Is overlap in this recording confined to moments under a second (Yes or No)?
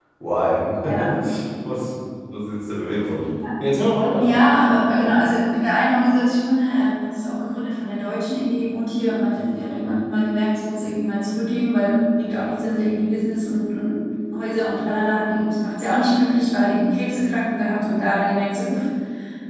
Yes